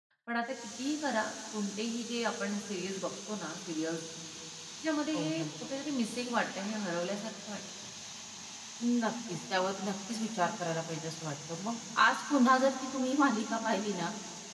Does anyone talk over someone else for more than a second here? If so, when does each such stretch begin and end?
none

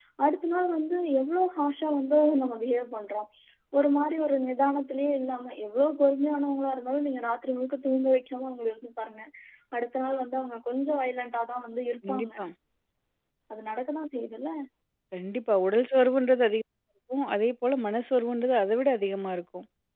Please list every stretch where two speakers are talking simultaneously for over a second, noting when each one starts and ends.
none

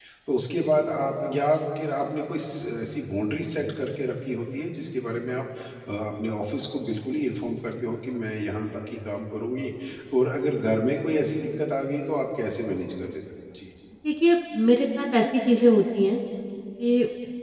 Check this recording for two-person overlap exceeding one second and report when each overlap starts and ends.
none

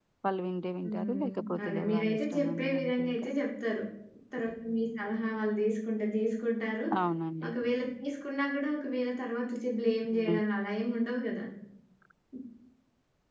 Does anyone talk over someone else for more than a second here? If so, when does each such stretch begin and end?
0.8-3.2

